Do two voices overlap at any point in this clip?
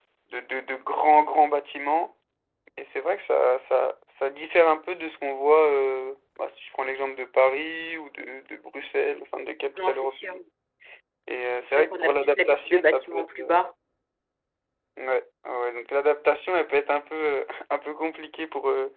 Yes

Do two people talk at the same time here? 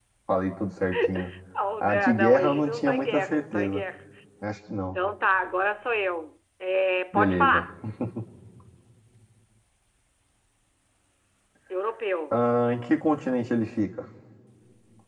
Yes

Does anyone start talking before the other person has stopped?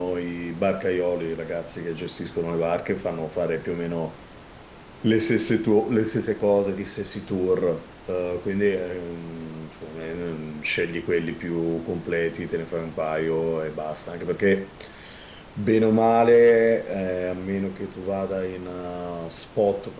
No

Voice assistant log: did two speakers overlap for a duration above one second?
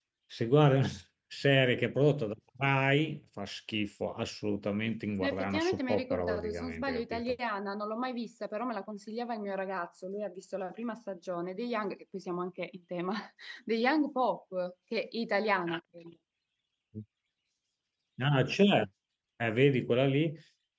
Yes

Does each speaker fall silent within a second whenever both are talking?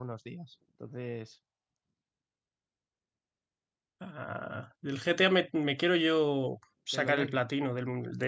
Yes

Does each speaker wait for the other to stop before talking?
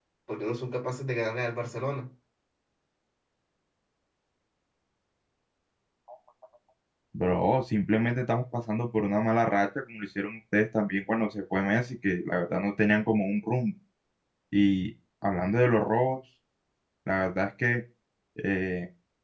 Yes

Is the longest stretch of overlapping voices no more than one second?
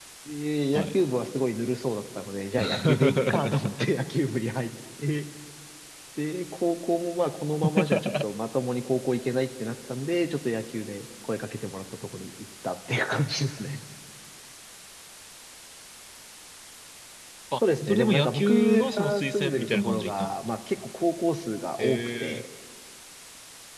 No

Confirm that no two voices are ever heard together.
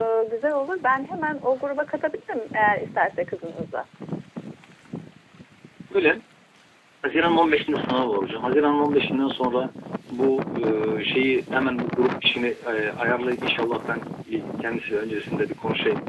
Yes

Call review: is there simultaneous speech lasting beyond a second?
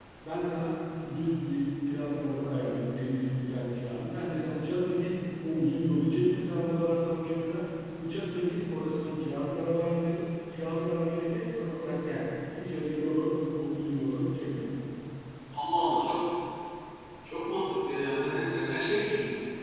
No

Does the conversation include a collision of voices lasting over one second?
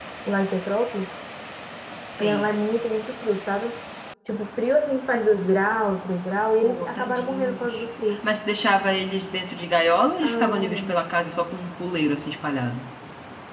Yes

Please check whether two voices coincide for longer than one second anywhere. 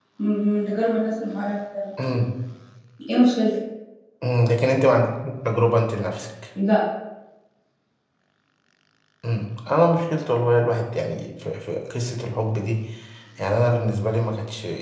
No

